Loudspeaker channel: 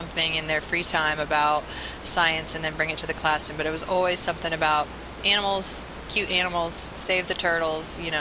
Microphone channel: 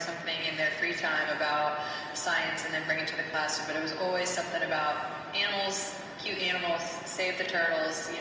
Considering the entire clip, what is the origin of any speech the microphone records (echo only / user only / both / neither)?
echo only